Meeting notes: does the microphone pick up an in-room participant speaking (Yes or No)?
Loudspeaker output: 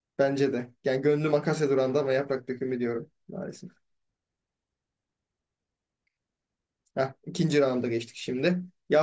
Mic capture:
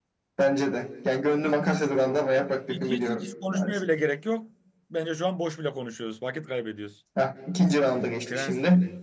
Yes